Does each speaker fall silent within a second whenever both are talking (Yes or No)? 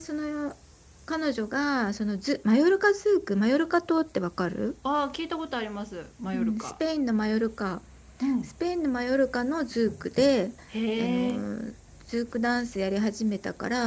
Yes